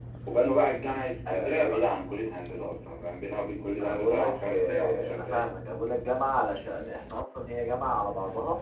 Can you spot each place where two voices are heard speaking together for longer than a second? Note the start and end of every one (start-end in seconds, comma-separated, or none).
3.8-5.5